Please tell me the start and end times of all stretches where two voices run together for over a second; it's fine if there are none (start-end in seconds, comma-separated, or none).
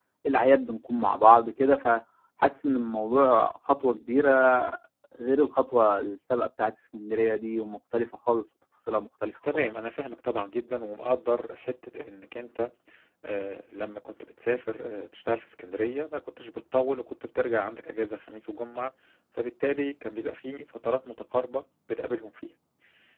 none